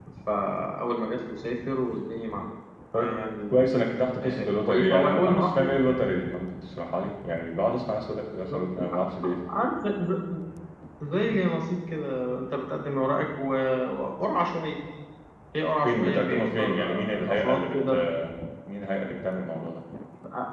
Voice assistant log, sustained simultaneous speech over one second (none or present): present